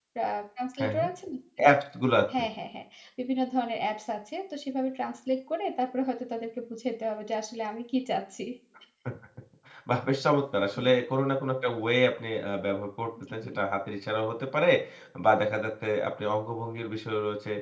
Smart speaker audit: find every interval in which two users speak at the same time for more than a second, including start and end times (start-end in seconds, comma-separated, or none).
none